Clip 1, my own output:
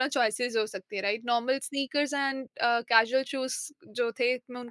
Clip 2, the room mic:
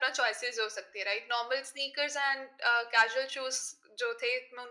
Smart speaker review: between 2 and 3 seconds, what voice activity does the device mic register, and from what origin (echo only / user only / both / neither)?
echo only